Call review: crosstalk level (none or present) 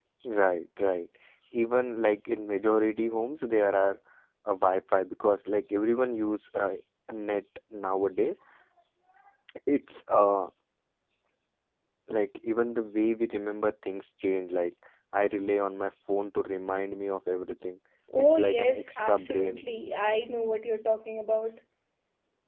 present